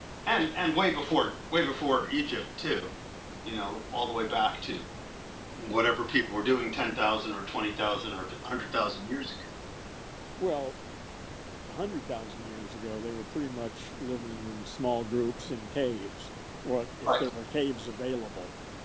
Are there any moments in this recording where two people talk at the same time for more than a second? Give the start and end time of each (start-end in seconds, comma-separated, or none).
none